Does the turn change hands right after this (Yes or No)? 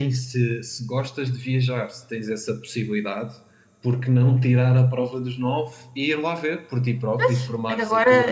Yes